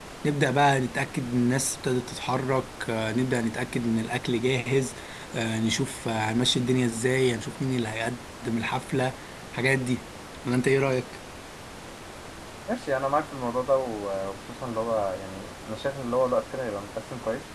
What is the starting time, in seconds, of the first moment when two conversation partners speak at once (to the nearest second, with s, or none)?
none